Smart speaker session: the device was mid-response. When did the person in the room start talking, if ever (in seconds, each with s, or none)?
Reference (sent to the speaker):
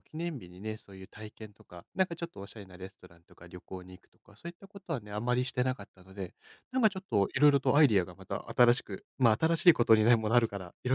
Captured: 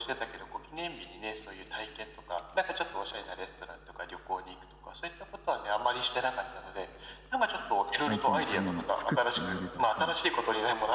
8.1 s